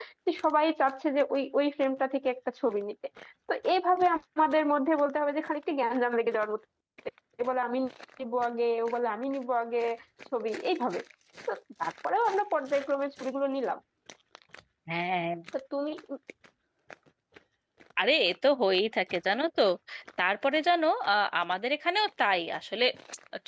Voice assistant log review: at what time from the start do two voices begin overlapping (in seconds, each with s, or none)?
none